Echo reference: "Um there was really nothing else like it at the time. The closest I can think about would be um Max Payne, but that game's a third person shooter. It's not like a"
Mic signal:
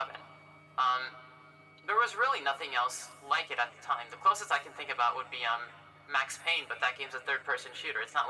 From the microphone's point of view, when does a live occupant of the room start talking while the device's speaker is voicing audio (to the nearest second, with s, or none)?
none